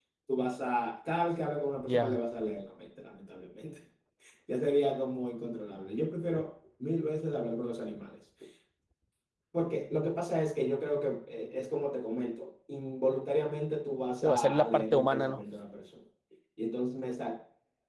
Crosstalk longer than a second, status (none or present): present